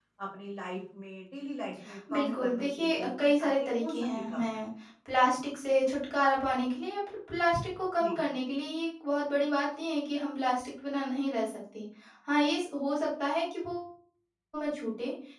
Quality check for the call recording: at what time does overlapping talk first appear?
2.1 s

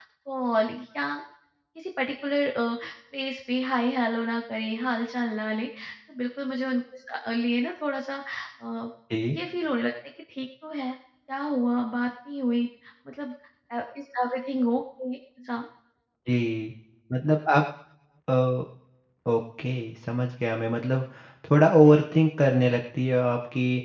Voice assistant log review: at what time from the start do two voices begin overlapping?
none

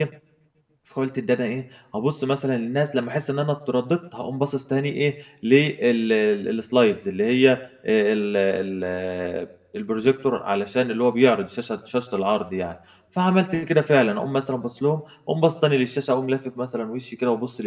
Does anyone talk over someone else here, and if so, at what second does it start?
none

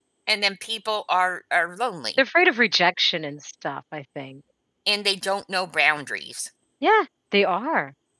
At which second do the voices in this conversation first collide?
none

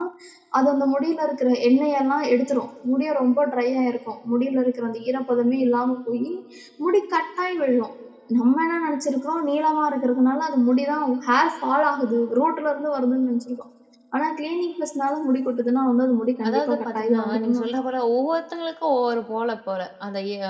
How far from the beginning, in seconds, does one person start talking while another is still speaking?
16.4 s

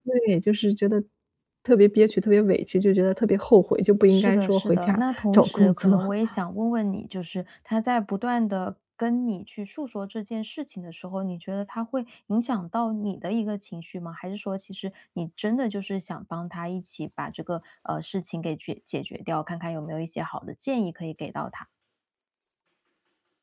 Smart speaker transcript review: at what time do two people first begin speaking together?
4.1 s

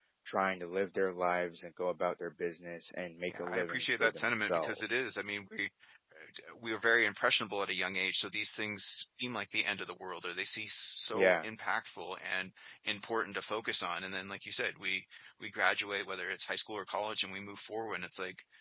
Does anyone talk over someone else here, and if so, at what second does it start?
3.3 s

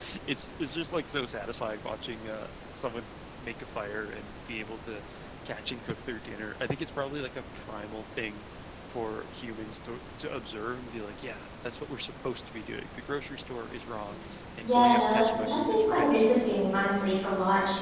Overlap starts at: 14.6 s

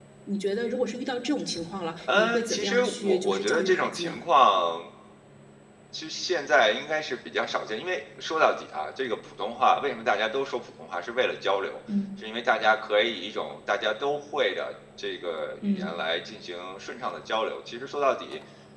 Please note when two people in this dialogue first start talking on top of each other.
2.0 s

